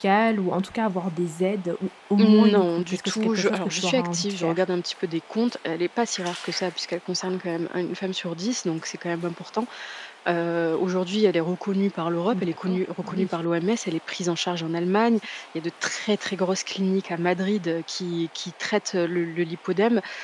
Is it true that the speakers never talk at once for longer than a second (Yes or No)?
No